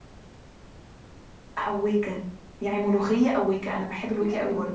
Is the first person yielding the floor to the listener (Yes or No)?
Yes